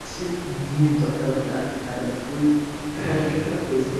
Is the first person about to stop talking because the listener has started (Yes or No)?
No